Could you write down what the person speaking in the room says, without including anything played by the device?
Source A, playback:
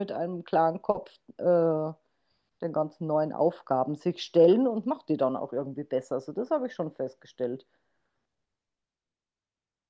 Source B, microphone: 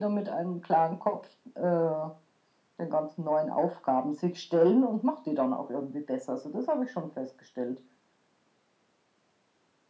none

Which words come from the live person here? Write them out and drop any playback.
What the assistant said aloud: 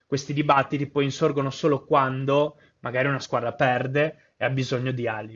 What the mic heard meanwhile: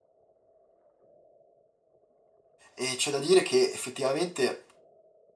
e c'è da dire che effettivamente

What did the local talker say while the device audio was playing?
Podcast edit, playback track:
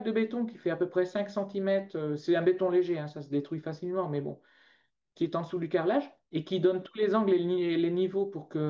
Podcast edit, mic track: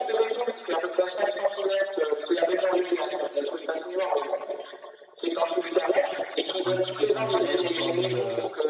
un petit peu temporaire, histoire de, euh,

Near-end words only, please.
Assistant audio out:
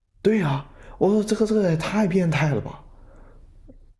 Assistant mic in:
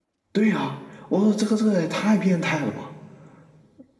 none

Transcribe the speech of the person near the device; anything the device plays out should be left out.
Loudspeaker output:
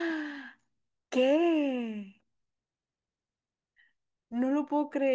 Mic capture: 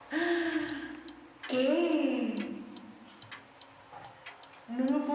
none

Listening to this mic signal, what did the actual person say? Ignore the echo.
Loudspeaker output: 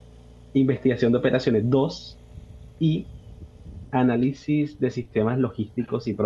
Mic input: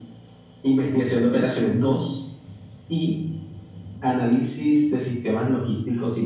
none

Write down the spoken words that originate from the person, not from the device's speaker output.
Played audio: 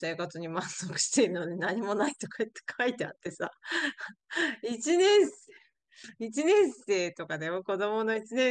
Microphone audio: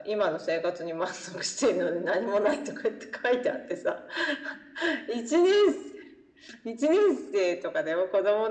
none

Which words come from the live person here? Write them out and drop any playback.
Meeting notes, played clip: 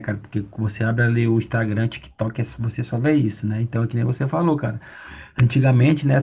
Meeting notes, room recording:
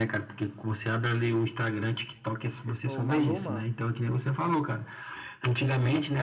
Fez com o Maluma?

